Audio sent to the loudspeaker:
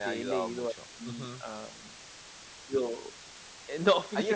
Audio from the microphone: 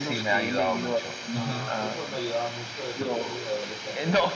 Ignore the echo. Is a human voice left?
Yes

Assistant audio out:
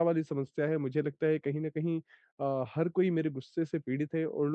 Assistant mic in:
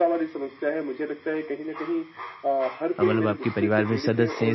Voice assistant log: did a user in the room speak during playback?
Yes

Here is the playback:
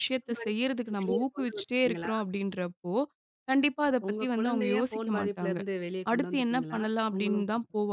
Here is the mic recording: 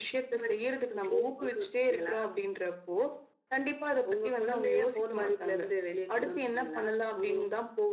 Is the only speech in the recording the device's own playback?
Yes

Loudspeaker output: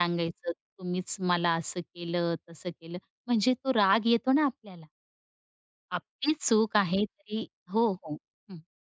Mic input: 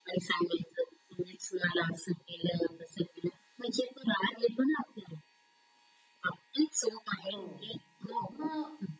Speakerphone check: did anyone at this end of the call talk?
Yes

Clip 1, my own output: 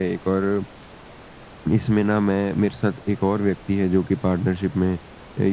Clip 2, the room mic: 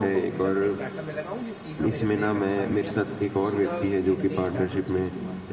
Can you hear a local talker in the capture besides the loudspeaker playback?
Yes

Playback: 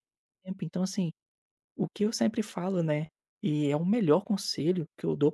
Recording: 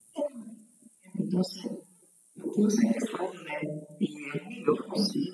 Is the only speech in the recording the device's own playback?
Yes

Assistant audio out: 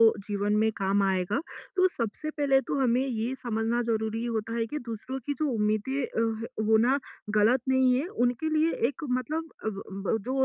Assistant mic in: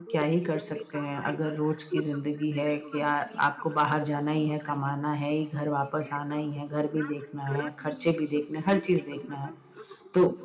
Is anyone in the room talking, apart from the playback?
Yes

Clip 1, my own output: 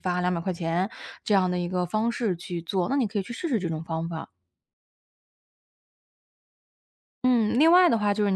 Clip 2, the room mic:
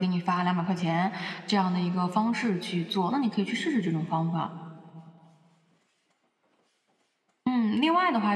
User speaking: No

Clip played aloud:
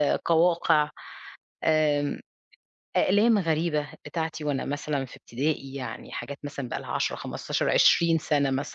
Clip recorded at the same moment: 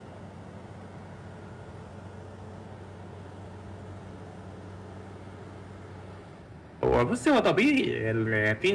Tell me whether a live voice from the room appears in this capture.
Yes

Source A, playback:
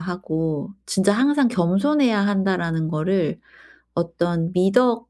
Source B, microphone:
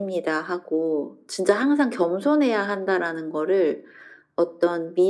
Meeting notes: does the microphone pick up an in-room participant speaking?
No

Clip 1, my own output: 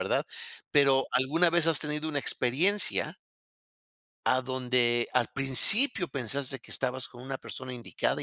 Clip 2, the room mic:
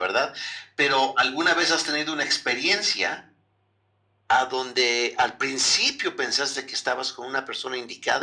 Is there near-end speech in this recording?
No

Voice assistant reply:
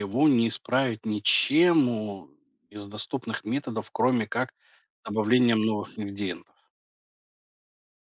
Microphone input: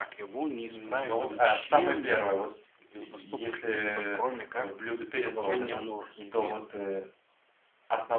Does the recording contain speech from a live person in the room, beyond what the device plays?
Yes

